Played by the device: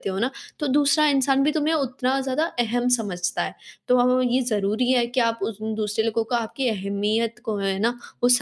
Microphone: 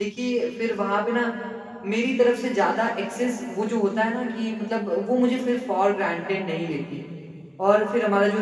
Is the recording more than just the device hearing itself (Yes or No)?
Yes